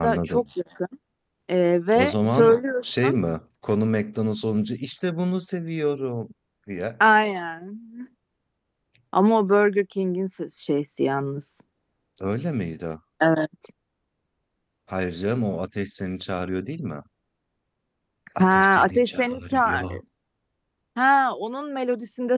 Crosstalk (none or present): present